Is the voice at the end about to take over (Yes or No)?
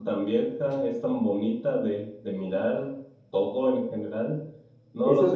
No